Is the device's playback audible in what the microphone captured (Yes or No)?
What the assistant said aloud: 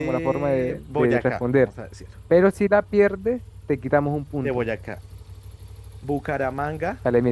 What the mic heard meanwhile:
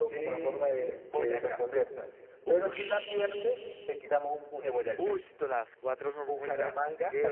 Yes